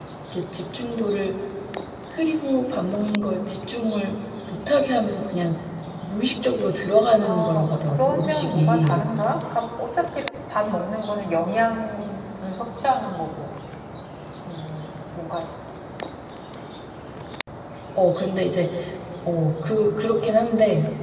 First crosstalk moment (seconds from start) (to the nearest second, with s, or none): 7 s